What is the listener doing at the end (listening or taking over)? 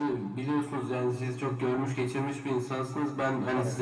listening